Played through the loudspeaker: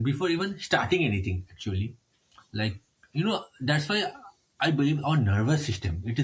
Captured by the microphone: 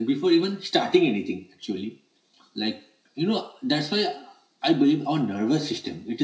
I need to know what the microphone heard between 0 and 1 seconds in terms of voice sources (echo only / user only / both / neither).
echo only